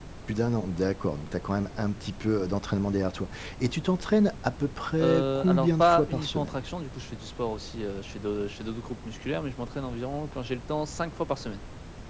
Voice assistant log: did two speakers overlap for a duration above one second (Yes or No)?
Yes